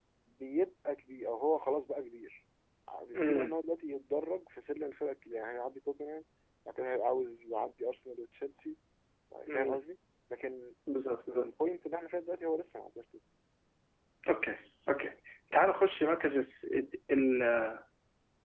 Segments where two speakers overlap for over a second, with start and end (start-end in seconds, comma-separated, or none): none